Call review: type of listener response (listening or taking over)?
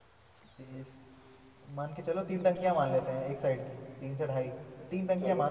listening